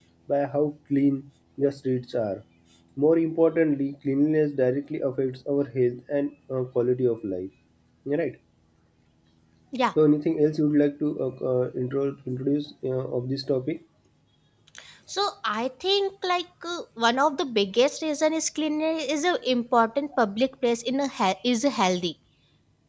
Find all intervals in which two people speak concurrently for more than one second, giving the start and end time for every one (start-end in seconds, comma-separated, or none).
none